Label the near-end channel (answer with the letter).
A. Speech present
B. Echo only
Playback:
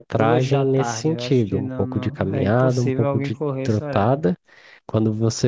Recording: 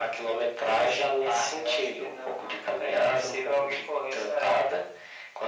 B